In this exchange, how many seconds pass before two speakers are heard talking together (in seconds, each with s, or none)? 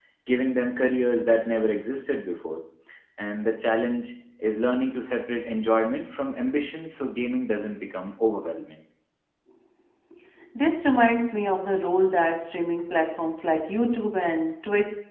none